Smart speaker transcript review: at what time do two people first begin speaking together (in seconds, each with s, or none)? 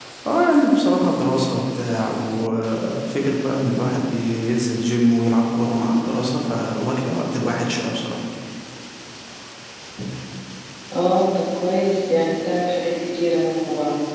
none